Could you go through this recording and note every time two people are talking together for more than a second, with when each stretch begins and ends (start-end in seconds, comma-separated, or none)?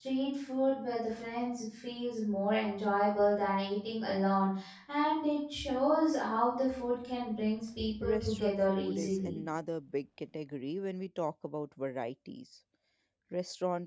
8.0-9.4